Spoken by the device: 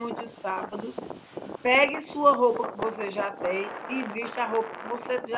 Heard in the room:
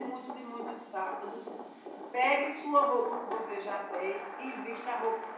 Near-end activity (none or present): none